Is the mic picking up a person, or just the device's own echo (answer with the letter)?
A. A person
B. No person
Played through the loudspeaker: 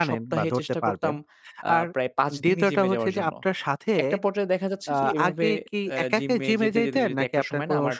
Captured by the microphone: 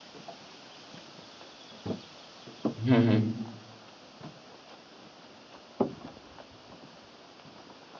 A